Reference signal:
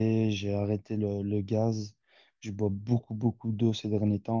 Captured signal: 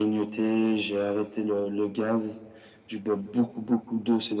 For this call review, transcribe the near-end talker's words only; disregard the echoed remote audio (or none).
none